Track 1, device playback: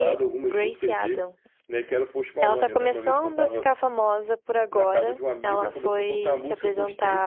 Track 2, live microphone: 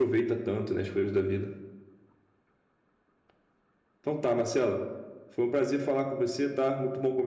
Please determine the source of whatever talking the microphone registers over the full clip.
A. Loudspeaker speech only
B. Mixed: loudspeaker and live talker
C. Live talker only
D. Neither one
C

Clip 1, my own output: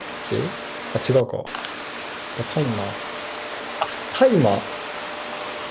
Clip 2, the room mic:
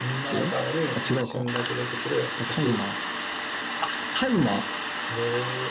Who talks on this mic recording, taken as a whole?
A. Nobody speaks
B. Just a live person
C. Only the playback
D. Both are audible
D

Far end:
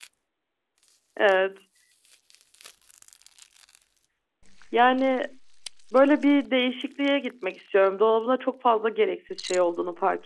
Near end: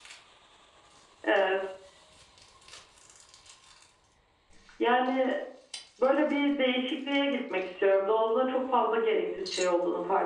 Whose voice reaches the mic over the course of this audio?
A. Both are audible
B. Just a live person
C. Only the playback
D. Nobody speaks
C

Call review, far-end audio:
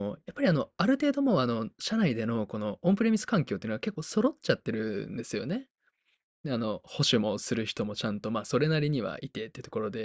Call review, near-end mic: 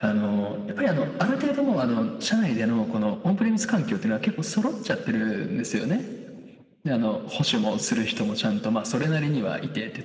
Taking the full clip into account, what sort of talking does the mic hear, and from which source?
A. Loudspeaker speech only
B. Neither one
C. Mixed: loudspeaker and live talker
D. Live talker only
A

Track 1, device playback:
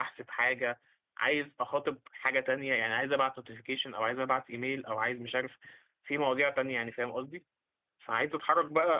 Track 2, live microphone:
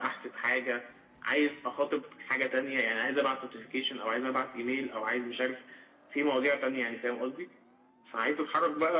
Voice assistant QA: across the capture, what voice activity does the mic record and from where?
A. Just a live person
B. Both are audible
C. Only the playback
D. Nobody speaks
C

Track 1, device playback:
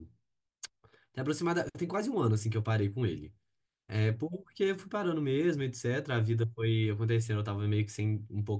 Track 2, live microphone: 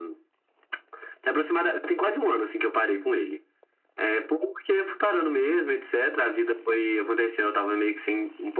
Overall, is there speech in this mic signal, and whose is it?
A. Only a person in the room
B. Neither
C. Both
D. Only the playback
D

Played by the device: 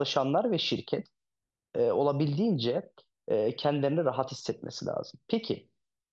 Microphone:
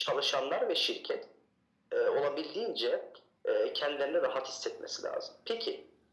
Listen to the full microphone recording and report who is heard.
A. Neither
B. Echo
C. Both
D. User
B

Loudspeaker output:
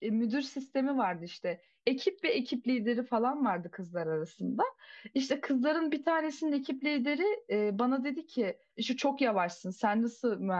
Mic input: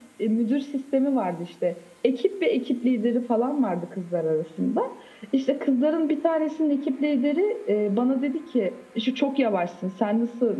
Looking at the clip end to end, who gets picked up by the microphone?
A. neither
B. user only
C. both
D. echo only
D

